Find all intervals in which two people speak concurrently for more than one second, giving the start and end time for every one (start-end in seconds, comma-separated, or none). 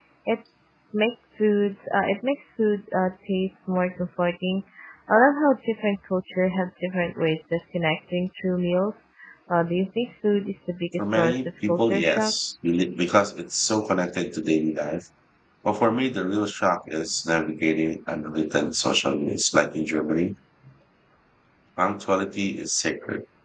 11.0-12.3